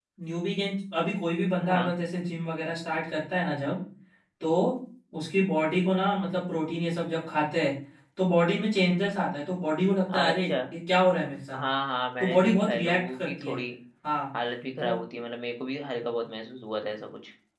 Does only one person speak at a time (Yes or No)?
No